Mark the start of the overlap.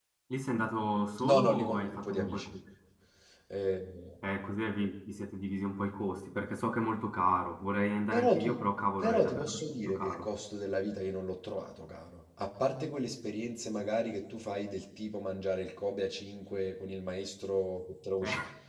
1.2 s

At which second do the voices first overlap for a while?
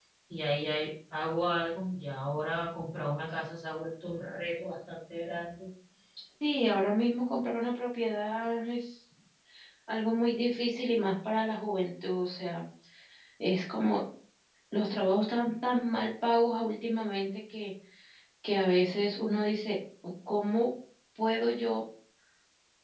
none

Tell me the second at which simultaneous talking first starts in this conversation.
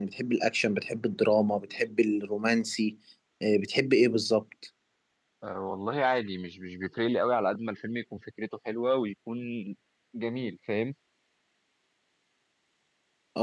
none

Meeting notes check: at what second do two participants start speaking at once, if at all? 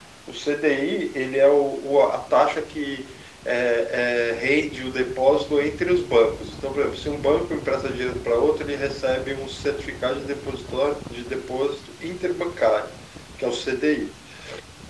none

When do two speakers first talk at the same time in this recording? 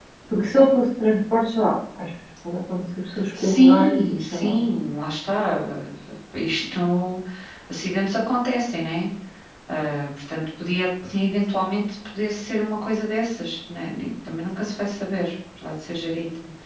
3.3 s

